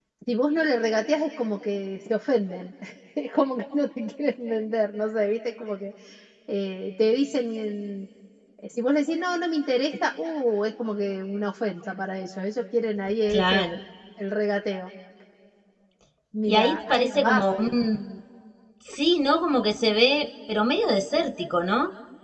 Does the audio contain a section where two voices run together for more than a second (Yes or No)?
Yes